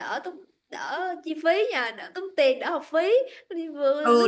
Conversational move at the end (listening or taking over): taking over